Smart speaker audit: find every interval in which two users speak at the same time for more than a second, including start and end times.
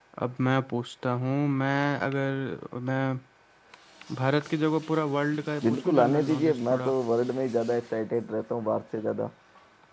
5.6-6.9

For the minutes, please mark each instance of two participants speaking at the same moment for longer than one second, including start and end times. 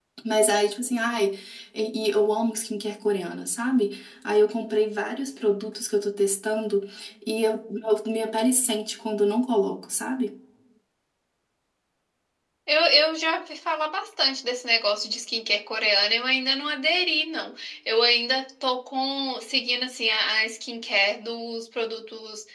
none

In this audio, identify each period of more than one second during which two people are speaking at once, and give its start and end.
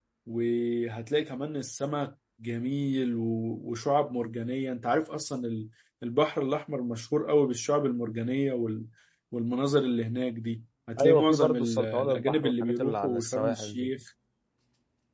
11.0-13.9

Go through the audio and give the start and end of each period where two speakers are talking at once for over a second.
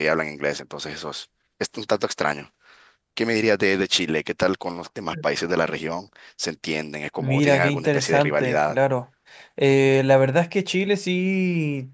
7.2-8.8

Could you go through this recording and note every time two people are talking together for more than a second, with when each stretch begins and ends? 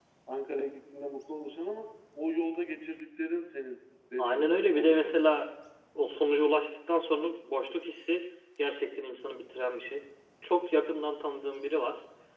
4.2-5.5

